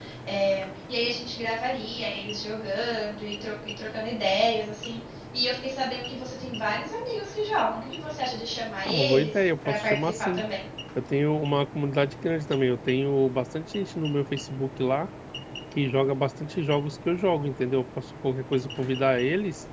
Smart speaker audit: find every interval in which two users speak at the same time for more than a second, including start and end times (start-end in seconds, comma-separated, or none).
8.8-10.4